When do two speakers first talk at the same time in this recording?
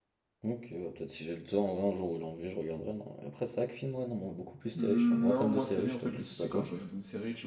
4.7 s

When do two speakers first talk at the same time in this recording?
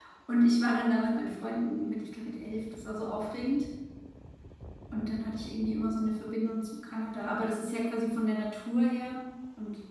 none

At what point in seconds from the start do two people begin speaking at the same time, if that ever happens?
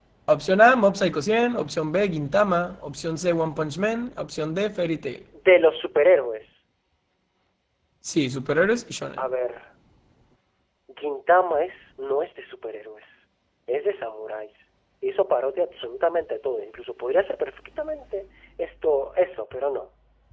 none

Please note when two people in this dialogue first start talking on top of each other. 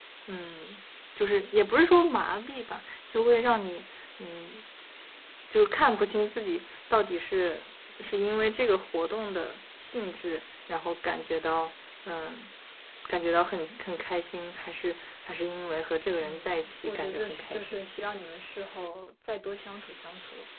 16.2 s

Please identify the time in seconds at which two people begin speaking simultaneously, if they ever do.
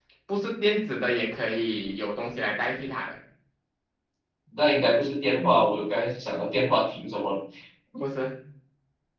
none

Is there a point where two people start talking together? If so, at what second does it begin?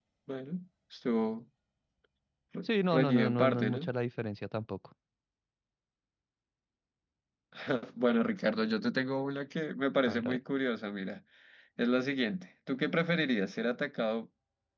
2.6 s

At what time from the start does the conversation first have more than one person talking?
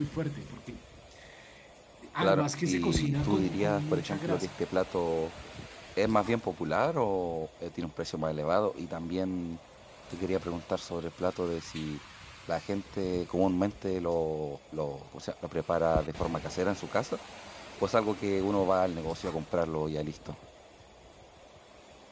2.2 s

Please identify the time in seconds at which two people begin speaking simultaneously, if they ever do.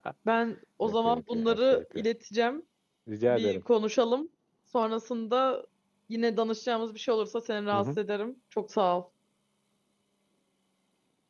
0.8 s

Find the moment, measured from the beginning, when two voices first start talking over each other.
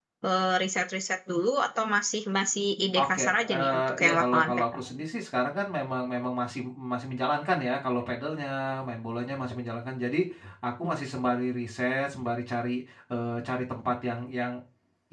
3.0 s

